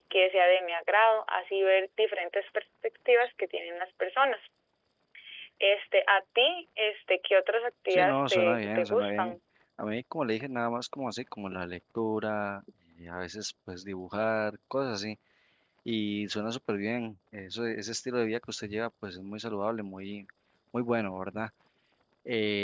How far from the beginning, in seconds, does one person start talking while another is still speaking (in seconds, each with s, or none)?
7.9 s